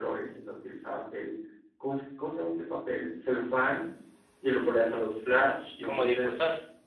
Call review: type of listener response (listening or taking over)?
listening